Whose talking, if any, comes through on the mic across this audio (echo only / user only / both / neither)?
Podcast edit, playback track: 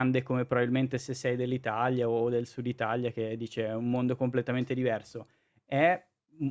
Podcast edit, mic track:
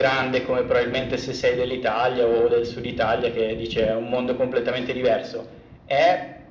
echo only